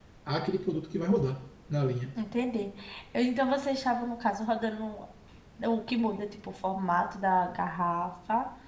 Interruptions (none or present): none